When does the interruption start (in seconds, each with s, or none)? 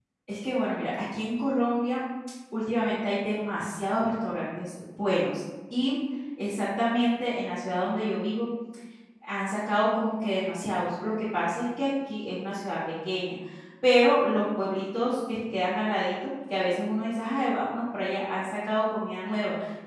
none